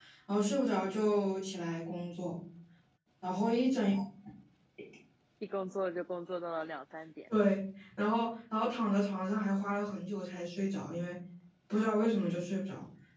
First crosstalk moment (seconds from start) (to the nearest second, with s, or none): none